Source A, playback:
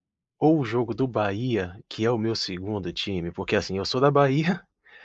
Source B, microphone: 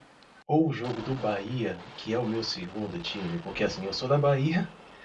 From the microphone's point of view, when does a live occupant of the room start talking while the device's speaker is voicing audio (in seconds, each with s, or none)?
none